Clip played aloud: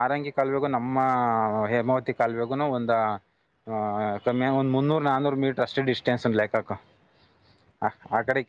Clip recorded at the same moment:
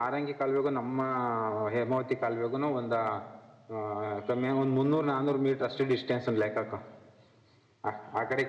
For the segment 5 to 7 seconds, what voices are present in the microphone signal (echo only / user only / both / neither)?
echo only